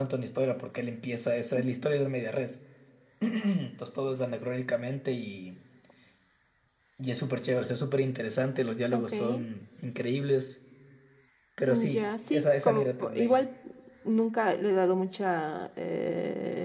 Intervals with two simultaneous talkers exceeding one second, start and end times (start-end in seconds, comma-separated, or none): 11.7-13.4